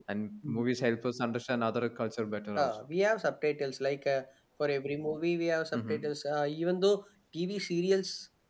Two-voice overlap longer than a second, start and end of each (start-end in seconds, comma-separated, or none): none